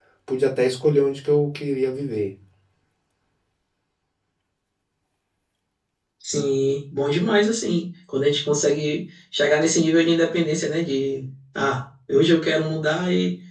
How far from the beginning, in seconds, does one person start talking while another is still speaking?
none

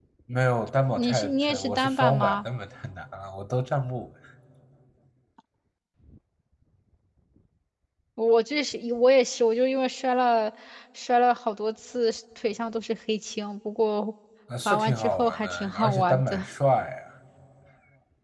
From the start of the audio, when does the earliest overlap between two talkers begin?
1.0 s

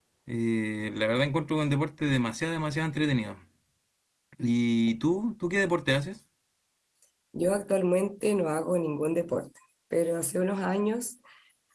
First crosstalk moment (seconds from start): none

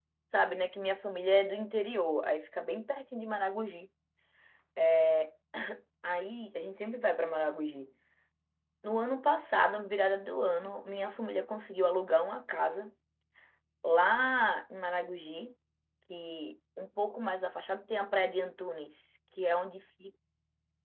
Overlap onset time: none

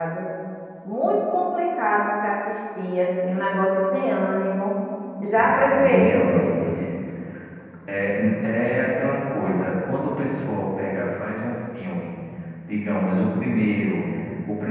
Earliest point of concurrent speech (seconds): 5.4 s

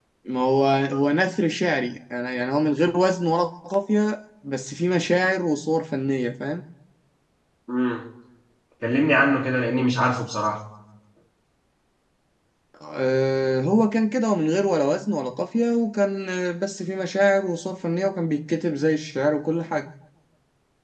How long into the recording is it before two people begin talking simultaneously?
none

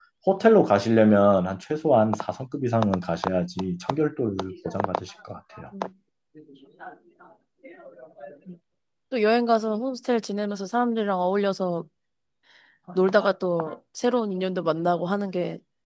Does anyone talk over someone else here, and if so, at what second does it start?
none

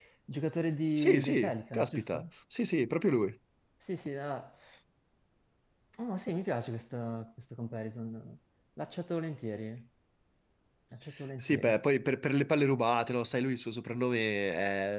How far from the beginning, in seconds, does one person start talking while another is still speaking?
1.0 s

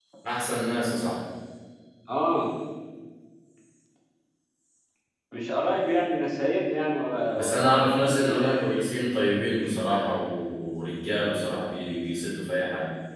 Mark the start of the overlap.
7.4 s

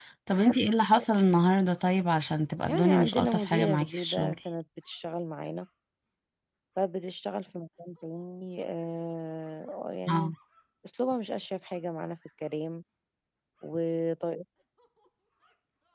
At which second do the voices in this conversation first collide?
2.7 s

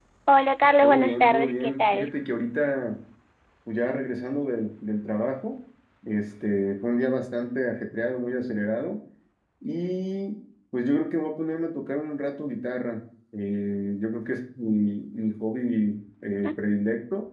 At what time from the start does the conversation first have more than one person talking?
0.8 s

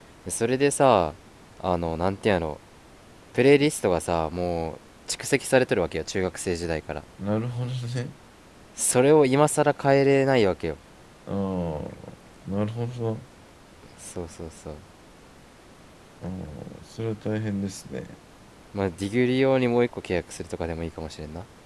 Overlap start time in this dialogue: none

